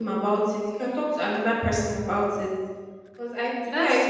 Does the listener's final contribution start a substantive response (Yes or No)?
Yes